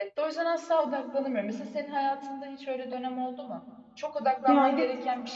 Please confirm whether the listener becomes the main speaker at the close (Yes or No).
No